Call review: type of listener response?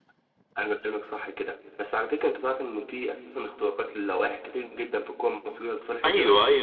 taking over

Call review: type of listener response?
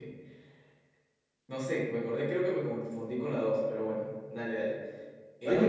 taking over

